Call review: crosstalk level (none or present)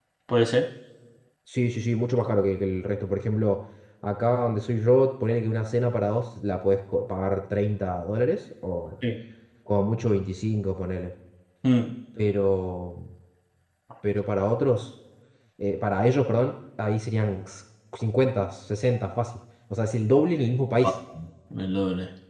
none